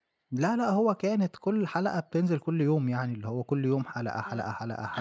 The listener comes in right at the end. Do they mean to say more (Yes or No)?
Yes